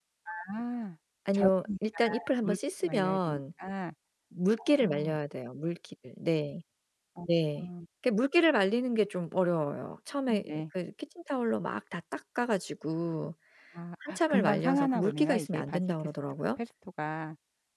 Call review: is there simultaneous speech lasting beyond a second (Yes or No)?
Yes